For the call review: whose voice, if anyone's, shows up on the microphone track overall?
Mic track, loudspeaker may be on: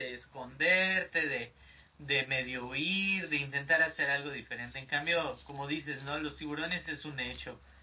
echo only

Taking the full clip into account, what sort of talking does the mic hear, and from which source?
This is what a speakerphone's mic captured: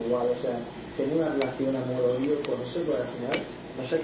echo only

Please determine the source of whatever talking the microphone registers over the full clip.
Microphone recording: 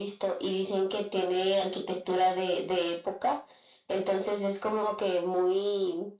echo only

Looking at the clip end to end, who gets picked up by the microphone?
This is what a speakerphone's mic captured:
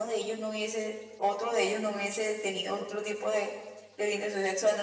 echo only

